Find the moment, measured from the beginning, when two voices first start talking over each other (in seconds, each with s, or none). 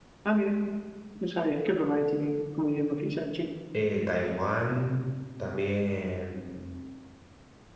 none